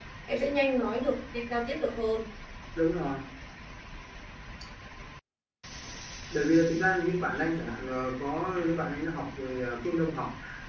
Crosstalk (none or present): none